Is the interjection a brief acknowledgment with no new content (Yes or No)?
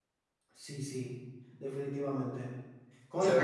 No